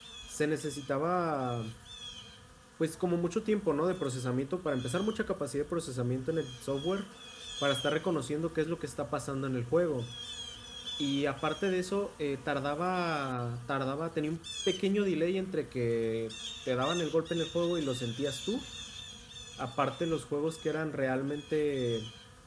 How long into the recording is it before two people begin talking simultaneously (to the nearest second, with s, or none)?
none